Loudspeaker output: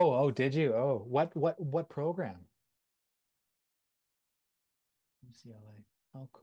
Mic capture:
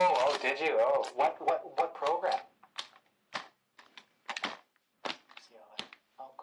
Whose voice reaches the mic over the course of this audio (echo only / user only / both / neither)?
echo only